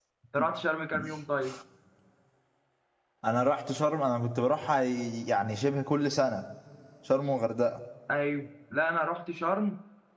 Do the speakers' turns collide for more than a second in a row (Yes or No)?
No